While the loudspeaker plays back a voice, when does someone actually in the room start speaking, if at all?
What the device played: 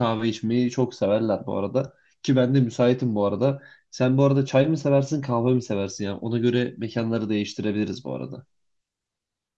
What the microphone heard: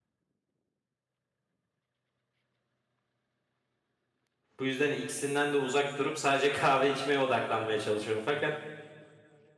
4.6 s

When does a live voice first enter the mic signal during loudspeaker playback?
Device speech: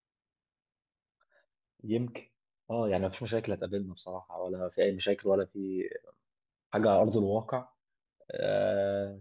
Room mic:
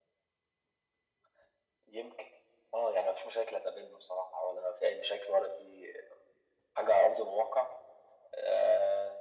none

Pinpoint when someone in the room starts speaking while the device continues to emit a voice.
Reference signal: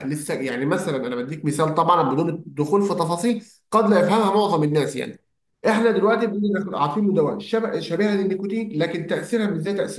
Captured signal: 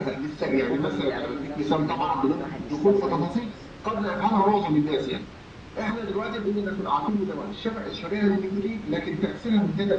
0.5 s

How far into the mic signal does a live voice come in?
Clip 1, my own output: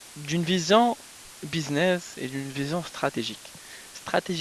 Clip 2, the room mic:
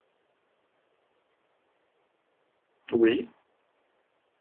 2.9 s

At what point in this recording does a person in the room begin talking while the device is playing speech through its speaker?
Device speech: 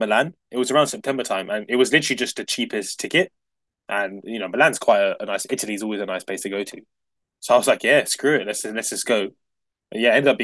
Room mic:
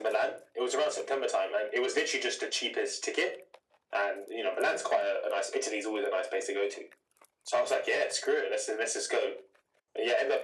none

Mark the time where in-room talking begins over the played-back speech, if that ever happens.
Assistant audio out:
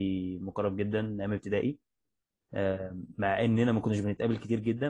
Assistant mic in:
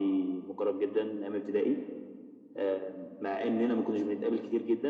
none

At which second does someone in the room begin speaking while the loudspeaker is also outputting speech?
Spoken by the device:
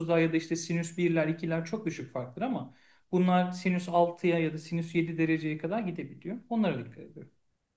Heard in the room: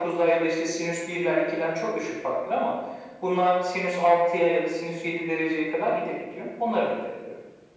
none

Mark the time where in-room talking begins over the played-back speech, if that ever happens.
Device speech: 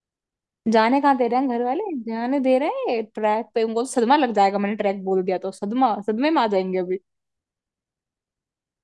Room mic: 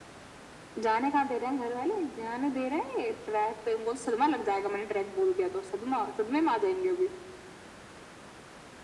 none

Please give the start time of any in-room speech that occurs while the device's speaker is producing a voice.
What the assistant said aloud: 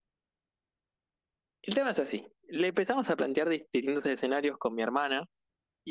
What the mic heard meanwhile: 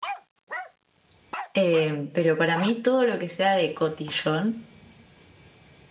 1.5 s

